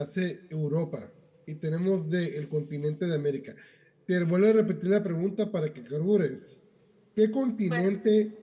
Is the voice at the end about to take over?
No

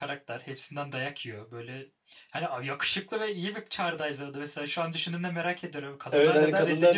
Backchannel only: No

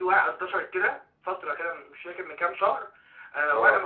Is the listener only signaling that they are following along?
Yes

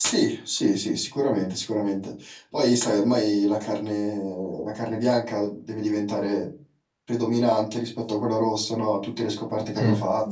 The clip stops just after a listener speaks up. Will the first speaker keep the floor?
No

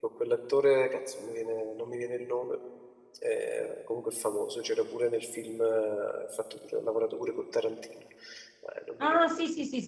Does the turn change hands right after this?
Yes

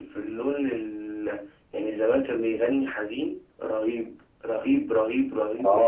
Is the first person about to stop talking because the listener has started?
Yes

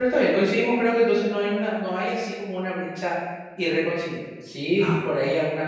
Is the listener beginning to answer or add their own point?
No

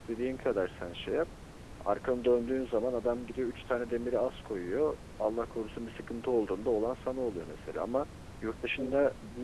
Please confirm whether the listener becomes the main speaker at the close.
No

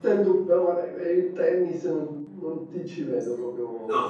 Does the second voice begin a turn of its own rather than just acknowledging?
Yes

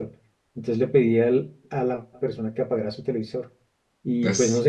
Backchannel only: Yes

